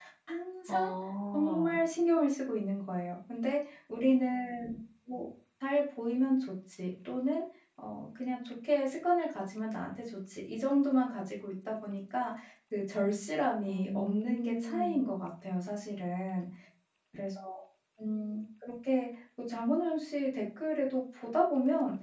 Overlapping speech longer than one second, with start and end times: 13.7-15.1

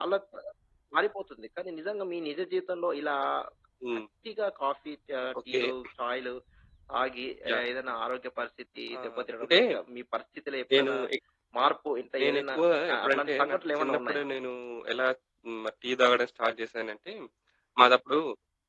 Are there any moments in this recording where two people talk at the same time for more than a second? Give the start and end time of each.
12.9-14.2

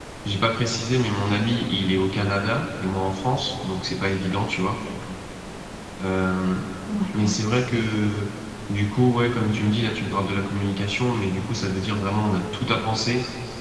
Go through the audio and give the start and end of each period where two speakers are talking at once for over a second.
none

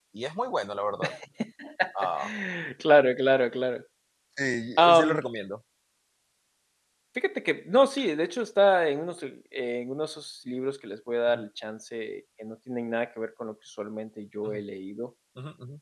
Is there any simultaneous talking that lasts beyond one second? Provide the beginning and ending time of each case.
none

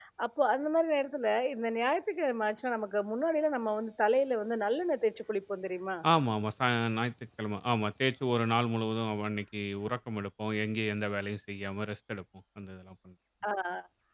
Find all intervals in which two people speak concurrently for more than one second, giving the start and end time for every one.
none

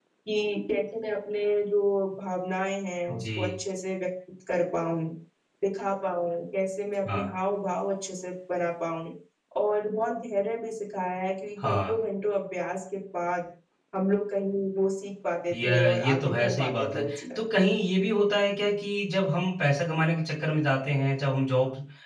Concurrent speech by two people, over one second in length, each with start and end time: 15.5-17.4

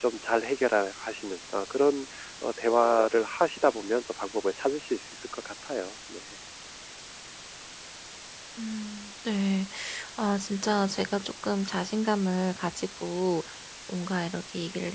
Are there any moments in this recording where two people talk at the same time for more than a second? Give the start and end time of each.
none

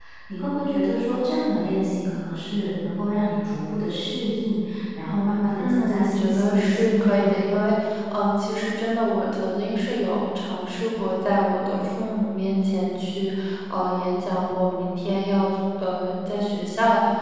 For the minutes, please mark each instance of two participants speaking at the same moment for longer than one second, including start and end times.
5.6-7.4

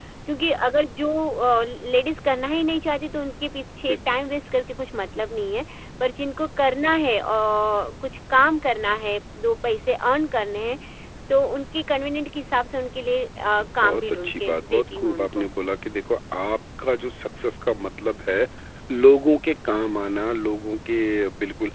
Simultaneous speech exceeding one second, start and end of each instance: 13.8-15.5

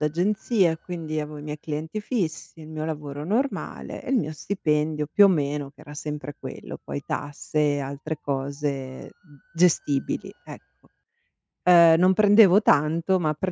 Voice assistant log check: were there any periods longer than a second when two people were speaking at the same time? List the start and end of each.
none

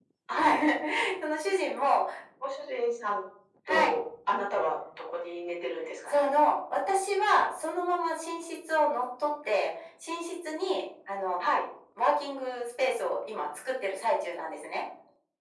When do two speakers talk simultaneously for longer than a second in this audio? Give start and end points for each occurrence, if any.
none

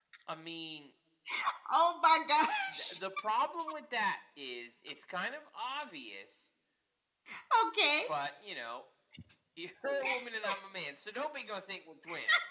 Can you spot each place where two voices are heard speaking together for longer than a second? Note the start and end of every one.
none

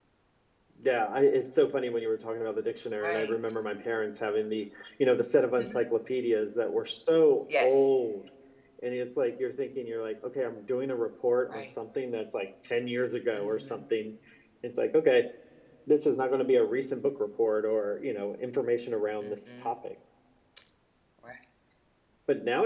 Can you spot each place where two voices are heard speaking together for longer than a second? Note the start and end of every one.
none

